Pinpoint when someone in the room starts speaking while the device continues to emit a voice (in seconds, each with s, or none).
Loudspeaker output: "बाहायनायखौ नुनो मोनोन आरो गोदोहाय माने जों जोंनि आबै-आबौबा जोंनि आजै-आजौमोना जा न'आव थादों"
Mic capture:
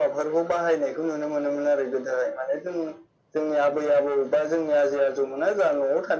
none